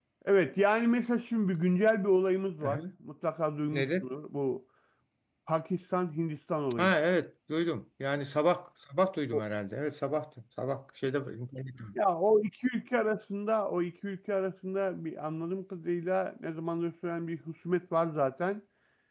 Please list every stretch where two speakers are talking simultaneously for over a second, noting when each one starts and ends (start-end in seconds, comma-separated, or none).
none